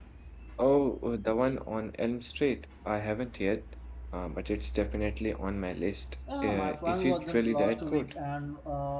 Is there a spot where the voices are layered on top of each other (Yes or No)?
Yes